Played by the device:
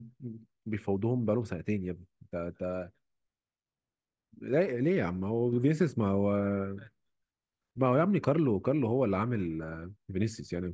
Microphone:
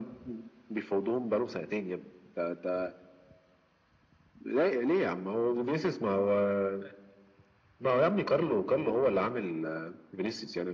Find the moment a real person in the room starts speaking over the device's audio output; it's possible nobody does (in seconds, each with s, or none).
none